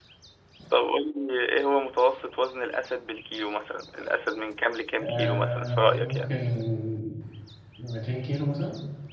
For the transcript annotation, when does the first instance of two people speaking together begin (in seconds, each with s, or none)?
5.0 s